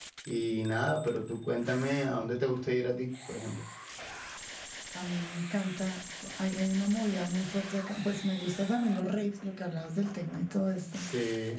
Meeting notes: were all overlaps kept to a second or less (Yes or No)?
Yes